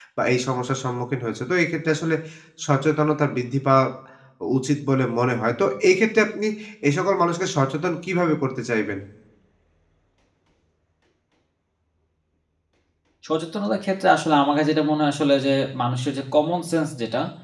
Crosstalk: none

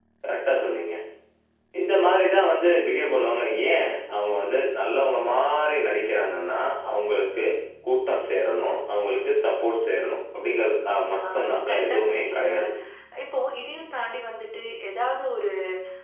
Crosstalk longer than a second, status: present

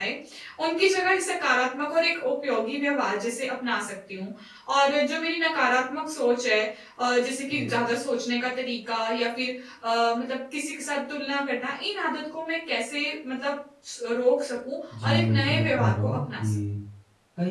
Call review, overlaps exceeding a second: present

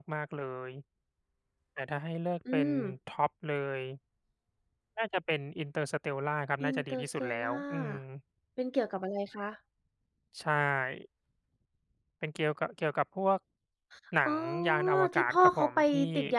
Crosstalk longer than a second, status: present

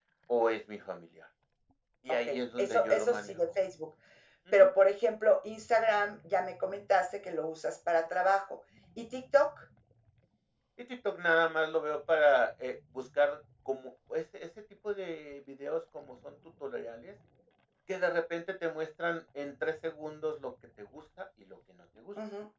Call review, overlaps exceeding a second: present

